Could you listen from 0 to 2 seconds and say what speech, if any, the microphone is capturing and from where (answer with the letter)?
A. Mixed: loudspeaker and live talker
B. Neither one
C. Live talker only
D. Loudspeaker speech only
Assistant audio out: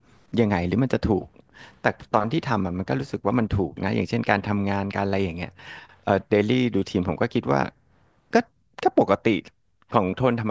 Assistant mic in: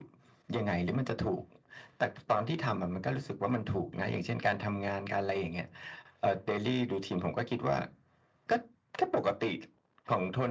D